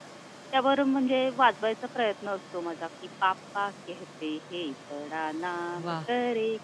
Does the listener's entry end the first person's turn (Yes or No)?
No